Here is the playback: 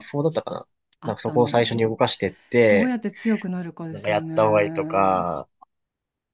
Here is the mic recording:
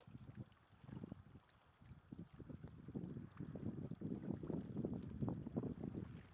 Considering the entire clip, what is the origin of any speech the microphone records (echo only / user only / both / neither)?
neither